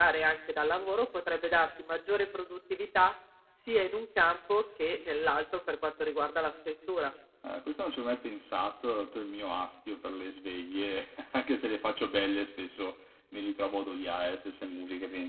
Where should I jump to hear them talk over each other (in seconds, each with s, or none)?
none